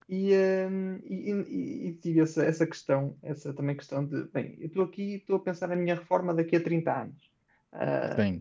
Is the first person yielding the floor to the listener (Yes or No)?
No